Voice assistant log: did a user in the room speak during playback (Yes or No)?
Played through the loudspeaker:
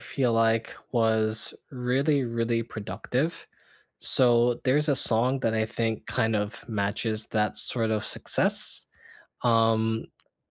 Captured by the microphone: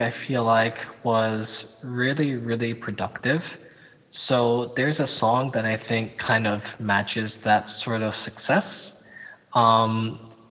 No